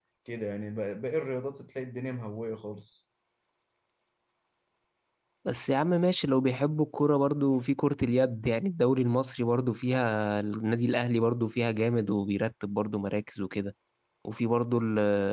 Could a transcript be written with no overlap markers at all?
Yes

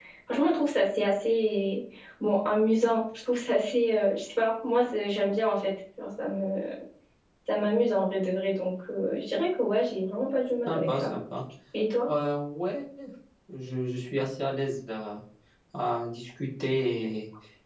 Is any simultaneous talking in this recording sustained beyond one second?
No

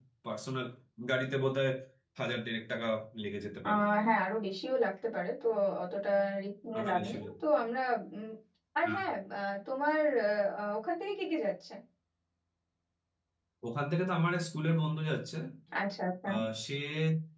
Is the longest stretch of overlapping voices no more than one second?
Yes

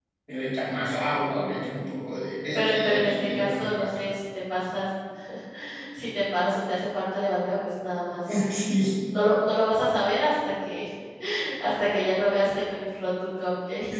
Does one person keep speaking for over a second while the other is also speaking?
Yes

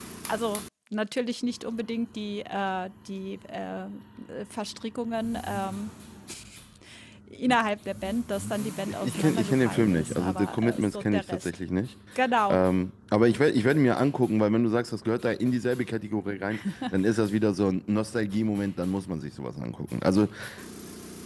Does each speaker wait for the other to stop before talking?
No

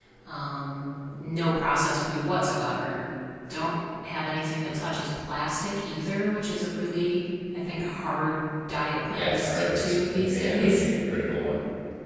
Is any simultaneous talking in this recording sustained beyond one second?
Yes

